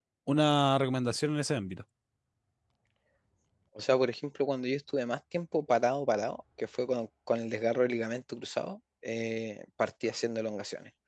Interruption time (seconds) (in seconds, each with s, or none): none